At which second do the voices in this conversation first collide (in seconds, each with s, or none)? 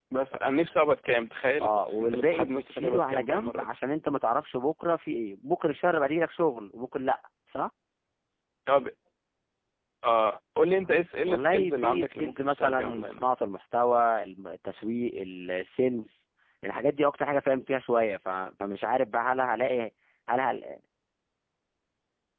1.6 s